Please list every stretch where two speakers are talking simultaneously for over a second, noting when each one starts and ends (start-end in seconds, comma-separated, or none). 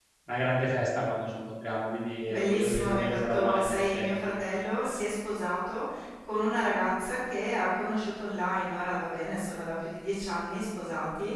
2.3-4.0